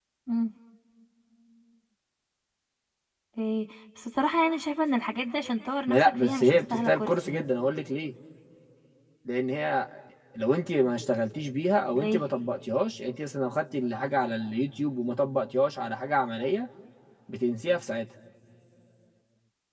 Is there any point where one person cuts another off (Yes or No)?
Yes